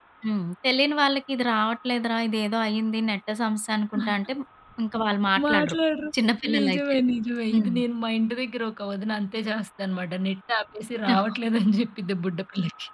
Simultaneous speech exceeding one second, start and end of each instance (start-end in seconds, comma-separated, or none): none